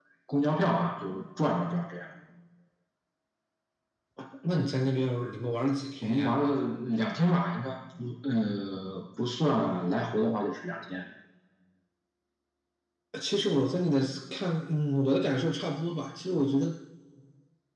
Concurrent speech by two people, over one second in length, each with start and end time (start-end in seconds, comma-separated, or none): none